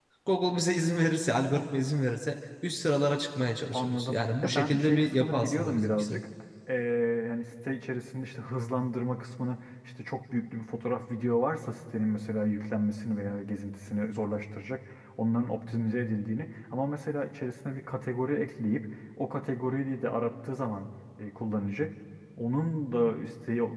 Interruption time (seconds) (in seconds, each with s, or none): 3.7 s